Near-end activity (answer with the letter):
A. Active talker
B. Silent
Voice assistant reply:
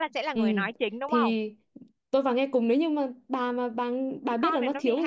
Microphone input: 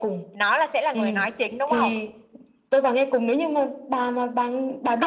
B